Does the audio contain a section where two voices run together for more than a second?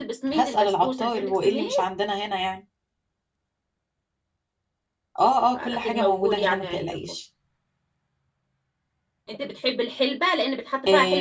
Yes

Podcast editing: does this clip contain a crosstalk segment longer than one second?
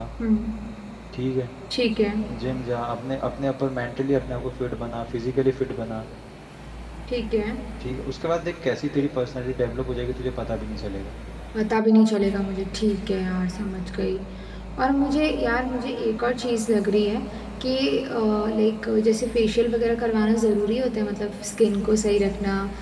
No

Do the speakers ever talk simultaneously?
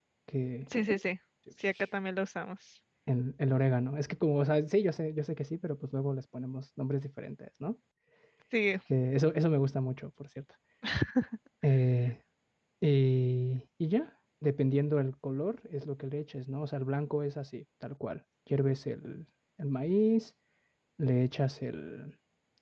No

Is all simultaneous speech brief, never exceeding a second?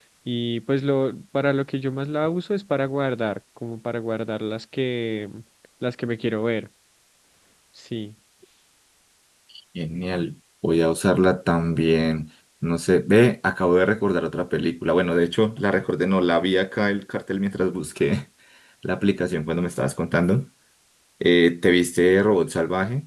Yes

